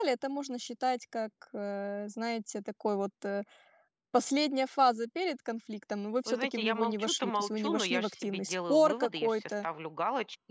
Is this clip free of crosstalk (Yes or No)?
No